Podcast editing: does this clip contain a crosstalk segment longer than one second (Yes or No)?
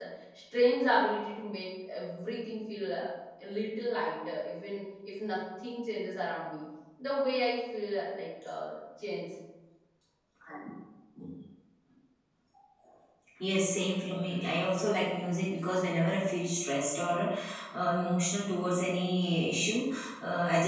No